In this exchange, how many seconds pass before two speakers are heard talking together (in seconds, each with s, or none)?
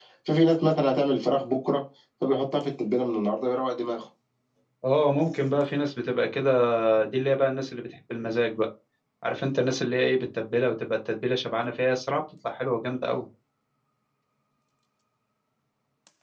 none